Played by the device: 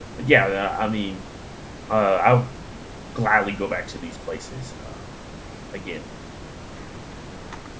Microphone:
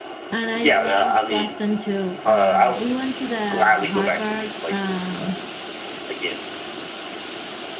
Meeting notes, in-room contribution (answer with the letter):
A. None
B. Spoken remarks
B